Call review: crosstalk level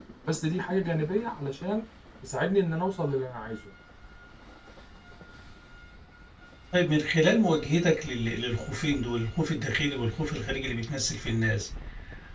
none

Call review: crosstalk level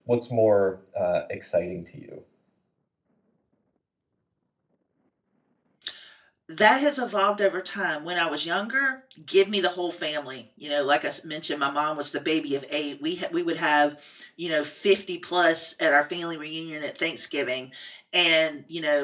none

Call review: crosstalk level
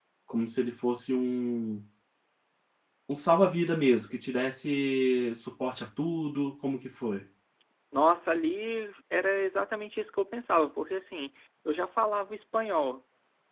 none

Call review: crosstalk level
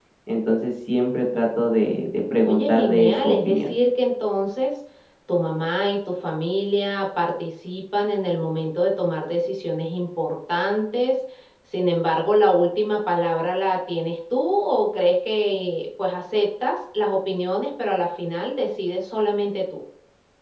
present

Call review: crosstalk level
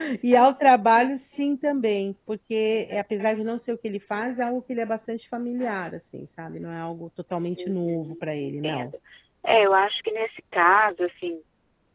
present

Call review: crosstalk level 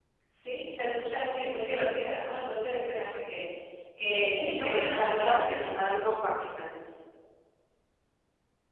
present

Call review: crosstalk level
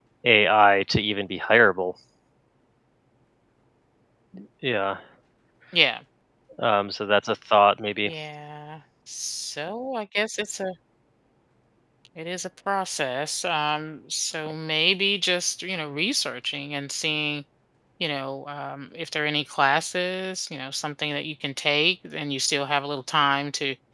none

